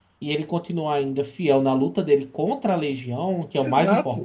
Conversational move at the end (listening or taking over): listening